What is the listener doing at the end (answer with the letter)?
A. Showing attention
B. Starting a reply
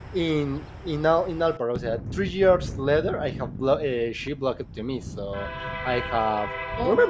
A